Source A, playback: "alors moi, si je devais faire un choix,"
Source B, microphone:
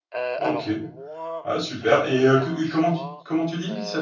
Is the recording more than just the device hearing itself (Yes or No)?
Yes